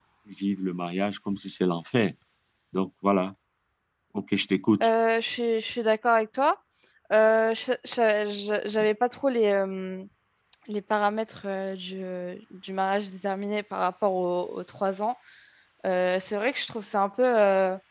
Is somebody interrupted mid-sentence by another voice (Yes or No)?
No